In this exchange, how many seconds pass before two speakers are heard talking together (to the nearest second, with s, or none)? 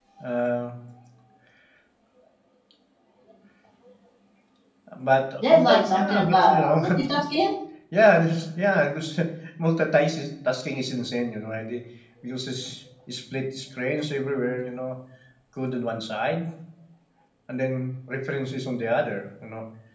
5 s